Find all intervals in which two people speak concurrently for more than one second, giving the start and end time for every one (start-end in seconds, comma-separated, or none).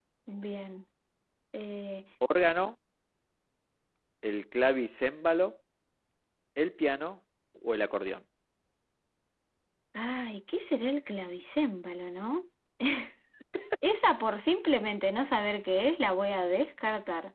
none